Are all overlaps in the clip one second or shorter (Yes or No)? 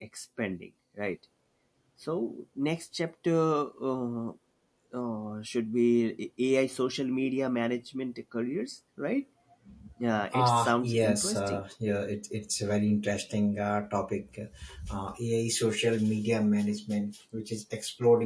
No